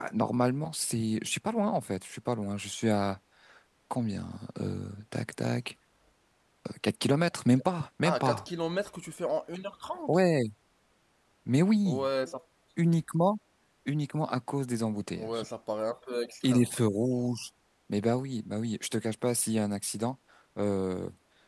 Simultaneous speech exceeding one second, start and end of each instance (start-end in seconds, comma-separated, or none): none